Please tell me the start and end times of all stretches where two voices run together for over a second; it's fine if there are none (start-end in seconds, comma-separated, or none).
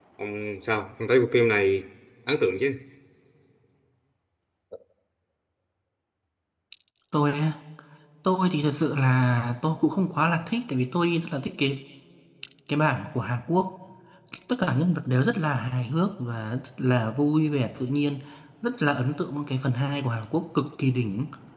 none